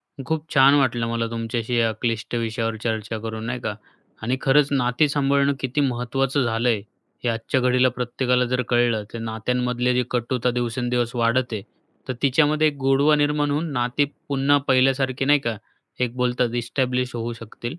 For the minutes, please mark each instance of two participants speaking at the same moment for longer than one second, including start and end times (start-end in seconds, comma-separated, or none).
none